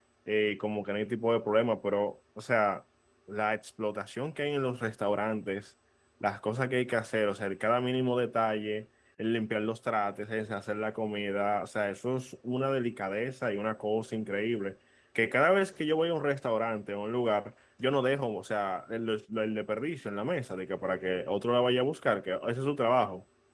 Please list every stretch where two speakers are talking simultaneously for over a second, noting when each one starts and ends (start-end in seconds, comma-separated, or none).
none